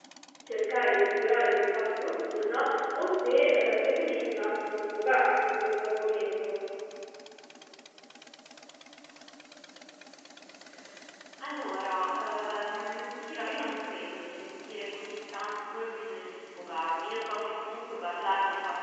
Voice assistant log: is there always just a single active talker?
Yes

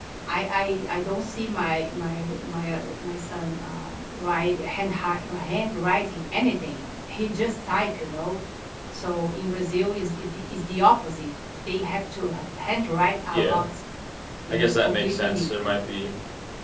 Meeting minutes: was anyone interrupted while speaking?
Yes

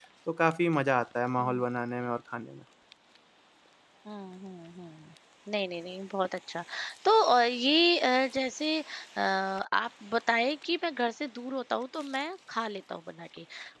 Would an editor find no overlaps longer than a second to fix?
Yes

